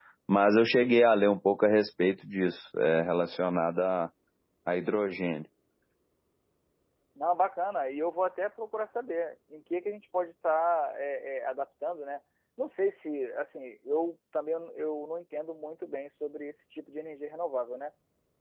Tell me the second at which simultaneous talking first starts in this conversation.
none

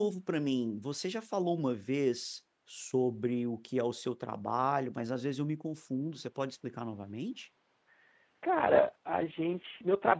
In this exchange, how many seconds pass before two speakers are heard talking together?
none

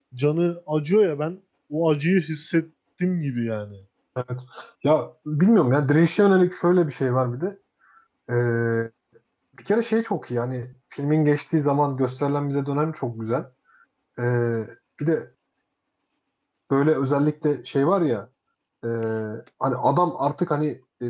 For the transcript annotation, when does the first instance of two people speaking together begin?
none

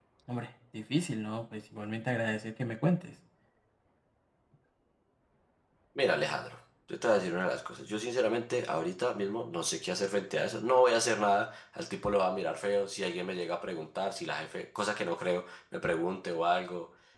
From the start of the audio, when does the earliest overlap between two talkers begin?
none

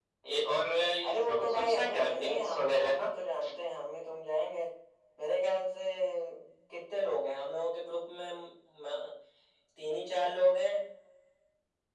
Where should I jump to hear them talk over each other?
1.0 s

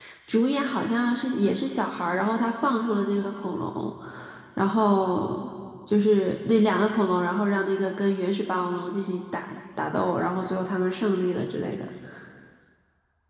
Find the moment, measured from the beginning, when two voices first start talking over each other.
none

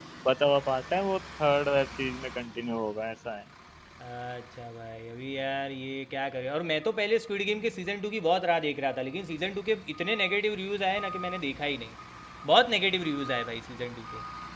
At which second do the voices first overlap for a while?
none

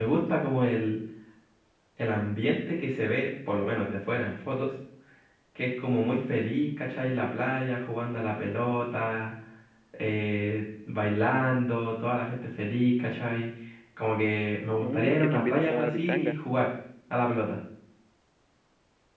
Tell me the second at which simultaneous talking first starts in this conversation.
14.8 s

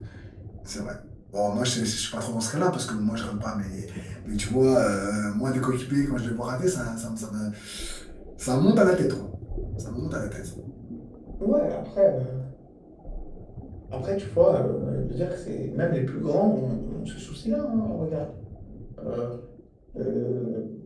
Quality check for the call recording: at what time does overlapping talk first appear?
none

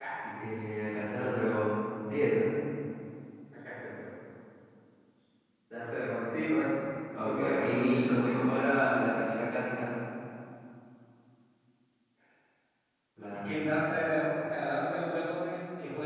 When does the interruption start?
7.2 s

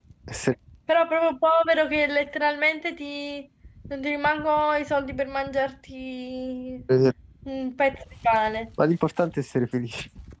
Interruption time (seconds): none

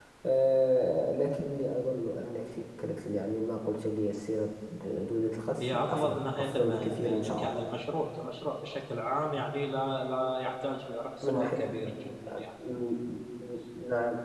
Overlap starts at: 5.6 s

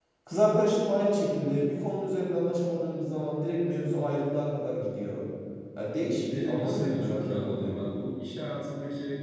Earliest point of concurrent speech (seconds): 6.2 s

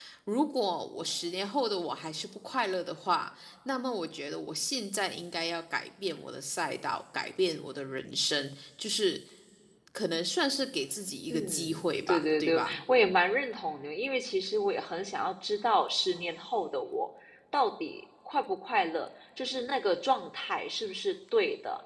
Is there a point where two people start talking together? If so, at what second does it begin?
11.3 s

